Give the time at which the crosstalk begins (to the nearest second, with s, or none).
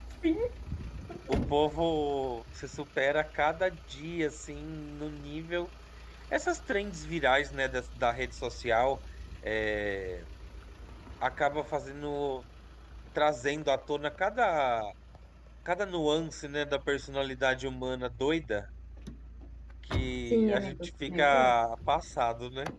20 s